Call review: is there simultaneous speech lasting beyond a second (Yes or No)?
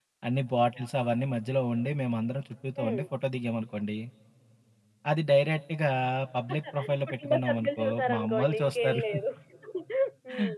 Yes